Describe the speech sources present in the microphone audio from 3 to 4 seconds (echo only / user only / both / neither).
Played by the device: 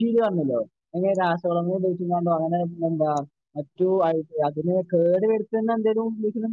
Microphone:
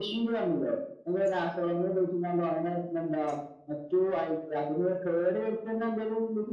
echo only